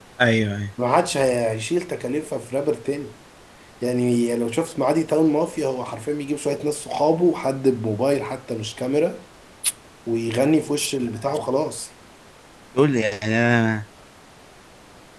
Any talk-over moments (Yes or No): No